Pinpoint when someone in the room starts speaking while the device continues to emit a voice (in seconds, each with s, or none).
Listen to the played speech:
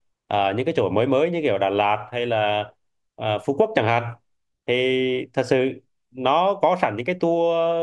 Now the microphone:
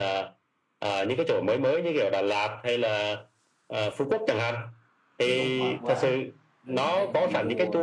5.2 s